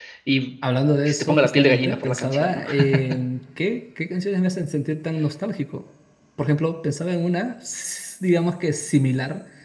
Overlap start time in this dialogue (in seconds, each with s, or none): 1.1 s